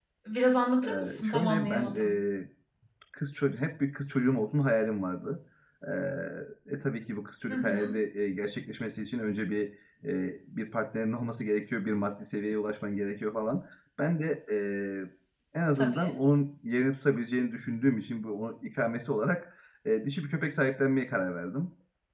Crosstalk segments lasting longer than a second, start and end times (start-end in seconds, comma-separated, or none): 0.8-2.1